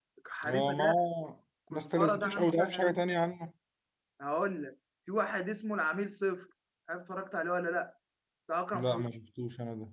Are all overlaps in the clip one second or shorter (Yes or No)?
No